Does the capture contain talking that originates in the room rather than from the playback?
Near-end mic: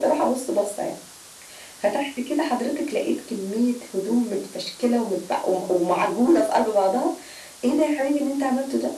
No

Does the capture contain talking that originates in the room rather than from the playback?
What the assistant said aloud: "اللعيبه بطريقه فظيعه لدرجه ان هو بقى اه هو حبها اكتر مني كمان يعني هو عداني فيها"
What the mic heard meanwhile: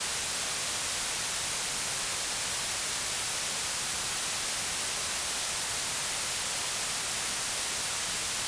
No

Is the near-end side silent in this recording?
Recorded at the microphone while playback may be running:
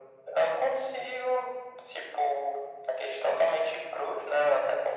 Yes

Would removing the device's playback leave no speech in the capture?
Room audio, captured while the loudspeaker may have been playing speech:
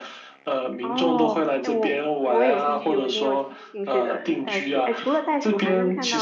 No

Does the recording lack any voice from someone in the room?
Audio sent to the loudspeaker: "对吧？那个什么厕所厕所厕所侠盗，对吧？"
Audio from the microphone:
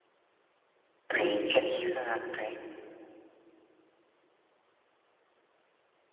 No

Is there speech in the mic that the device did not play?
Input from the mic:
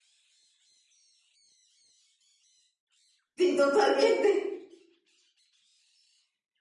Yes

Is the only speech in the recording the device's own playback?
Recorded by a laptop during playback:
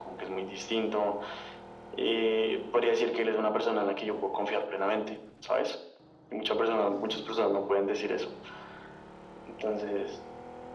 Yes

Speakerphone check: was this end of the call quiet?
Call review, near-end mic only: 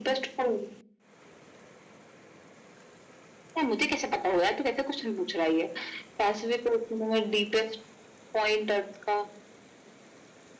Yes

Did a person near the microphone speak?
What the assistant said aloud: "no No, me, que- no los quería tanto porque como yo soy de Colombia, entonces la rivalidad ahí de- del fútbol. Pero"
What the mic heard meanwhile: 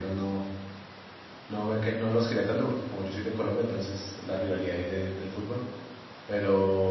No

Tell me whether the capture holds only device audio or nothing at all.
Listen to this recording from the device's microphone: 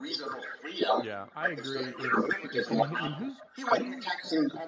No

